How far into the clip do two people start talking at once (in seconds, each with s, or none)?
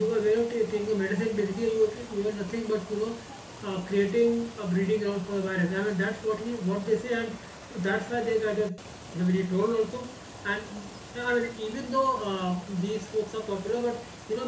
none